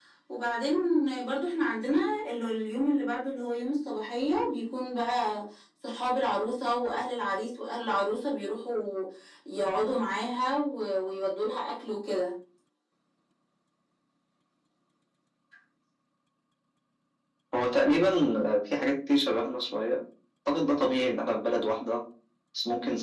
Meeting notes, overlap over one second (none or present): none